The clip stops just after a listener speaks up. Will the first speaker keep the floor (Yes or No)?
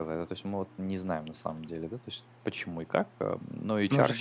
No